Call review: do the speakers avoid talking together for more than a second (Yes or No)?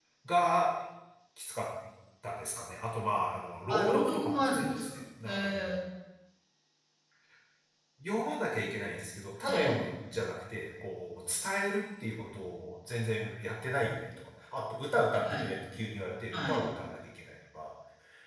No